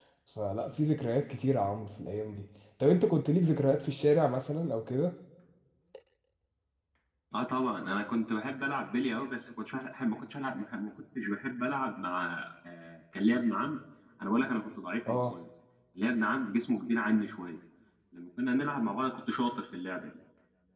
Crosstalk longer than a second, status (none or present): none